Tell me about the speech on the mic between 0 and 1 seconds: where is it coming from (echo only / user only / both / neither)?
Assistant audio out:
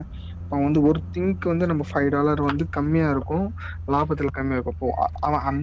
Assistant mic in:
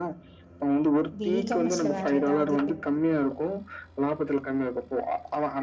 echo only